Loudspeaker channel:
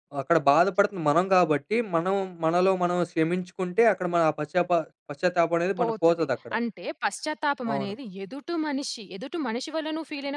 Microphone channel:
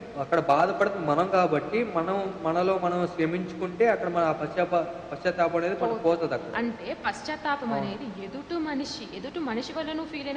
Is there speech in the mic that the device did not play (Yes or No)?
No